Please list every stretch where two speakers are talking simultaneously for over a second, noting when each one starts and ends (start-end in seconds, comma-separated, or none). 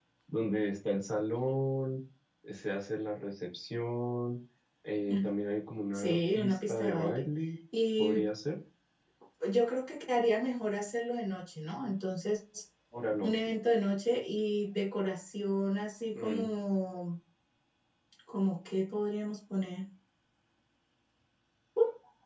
5.9-7.3